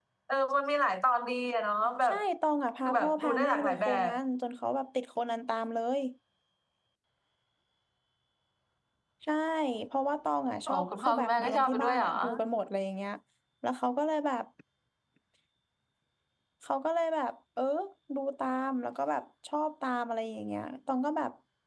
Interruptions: present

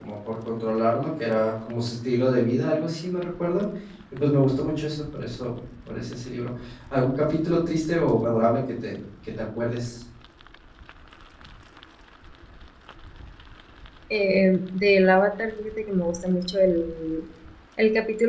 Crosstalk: none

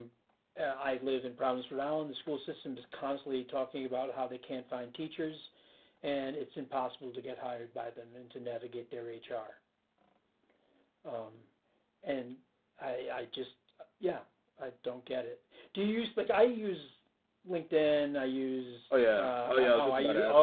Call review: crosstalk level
present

